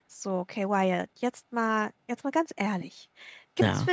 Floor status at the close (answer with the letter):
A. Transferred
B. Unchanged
B